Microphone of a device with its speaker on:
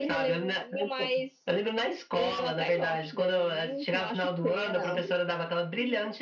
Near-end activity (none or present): none